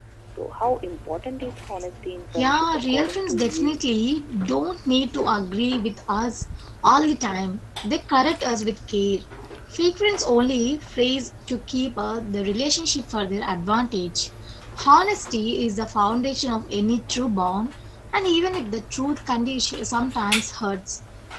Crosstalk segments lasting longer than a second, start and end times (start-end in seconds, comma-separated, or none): 2.3-3.8